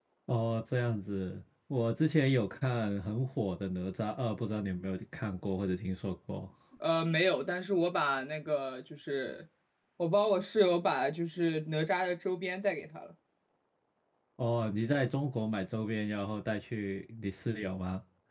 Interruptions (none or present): none